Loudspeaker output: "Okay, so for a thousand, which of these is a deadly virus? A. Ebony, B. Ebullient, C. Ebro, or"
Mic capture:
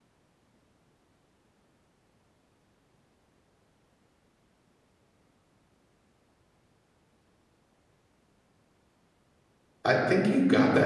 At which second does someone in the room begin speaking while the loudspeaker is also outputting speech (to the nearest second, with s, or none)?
10 s